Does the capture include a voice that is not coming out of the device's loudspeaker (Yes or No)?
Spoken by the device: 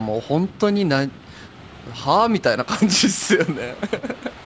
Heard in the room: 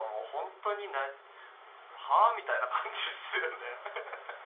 No